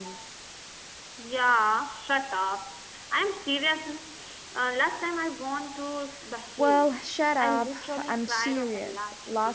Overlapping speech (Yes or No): Yes